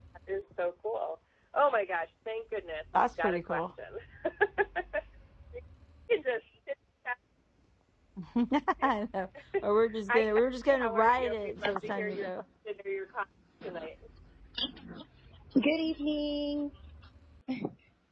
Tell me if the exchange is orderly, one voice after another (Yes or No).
No